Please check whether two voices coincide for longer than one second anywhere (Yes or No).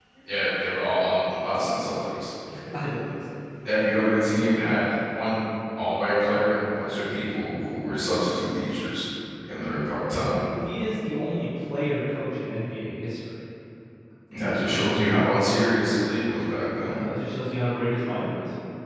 No